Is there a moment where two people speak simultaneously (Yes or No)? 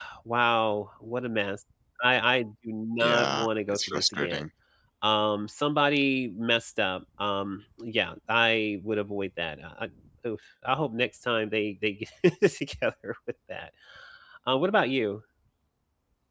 Yes